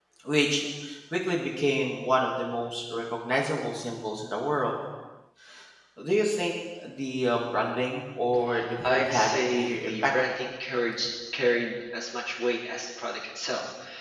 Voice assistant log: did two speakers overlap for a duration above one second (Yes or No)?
Yes